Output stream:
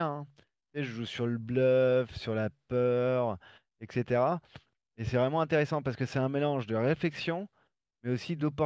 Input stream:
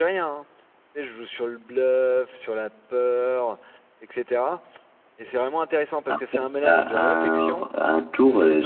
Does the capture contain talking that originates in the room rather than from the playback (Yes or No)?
Yes